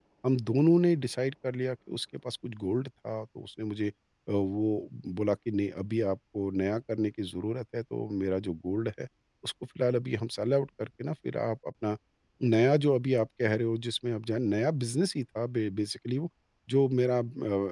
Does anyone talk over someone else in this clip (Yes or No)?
No